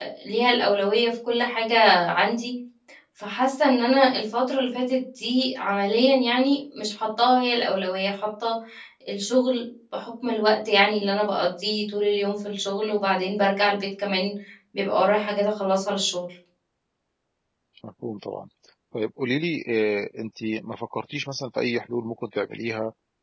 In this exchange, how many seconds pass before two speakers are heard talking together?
none

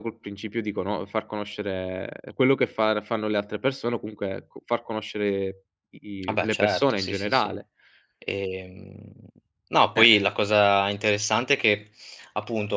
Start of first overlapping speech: 6.2 s

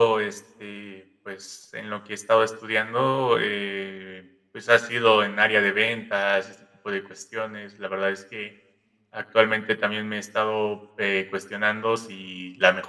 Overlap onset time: none

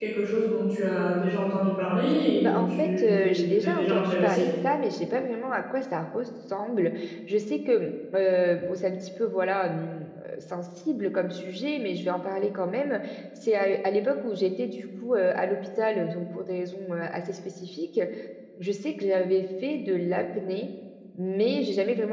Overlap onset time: 2.4 s

